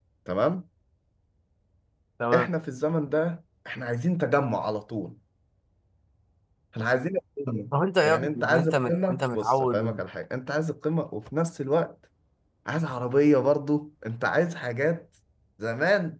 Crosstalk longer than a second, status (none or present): present